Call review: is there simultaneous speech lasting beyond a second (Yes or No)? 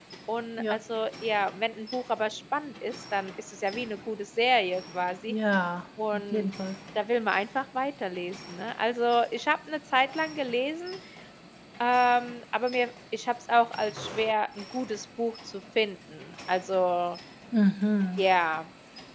No